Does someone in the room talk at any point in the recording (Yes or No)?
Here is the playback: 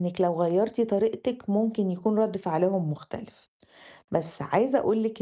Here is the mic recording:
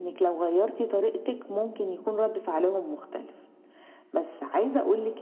No